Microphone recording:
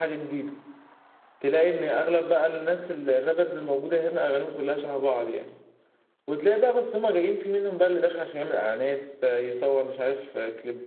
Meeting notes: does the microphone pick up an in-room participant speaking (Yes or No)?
Yes